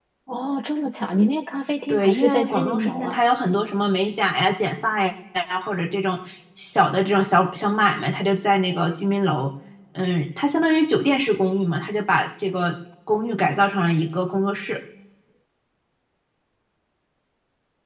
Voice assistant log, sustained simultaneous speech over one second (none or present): present